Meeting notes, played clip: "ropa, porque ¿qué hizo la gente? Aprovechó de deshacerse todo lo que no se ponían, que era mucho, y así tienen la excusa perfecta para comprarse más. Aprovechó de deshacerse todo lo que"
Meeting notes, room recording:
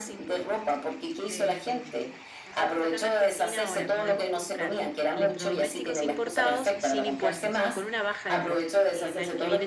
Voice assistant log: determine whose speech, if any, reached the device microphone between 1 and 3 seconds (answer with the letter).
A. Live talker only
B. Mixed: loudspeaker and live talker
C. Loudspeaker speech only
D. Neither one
B